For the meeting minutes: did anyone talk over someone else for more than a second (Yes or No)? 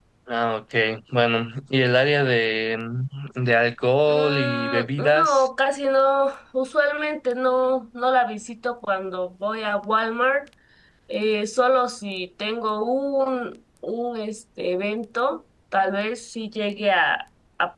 Yes